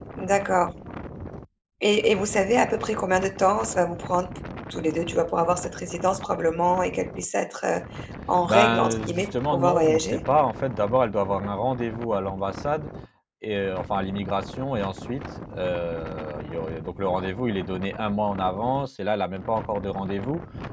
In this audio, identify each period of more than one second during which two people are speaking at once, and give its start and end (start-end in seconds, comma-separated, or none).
8.5-10.2